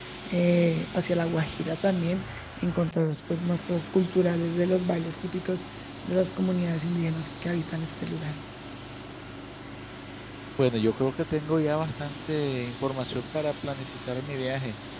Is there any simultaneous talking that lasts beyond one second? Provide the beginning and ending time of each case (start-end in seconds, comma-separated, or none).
none